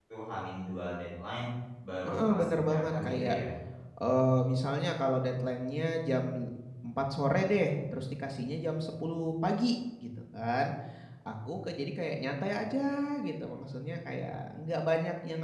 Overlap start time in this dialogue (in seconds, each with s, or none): 2.0 s